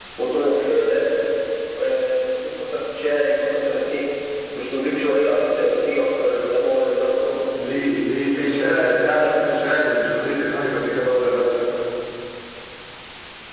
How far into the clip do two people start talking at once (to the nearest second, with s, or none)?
8 s